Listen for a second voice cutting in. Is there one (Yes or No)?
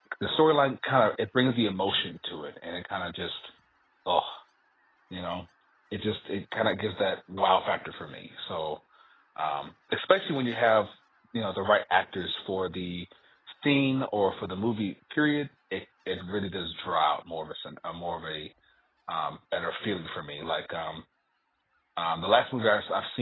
No